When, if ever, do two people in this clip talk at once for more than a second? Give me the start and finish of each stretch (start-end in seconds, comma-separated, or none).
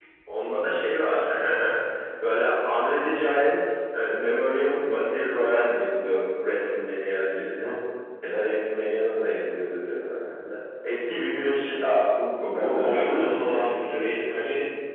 12.6-13.9